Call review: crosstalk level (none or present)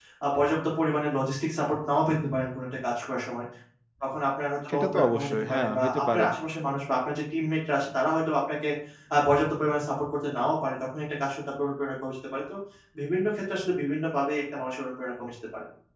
present